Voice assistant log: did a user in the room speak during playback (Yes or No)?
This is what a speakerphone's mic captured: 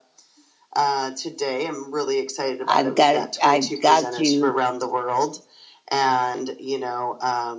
Yes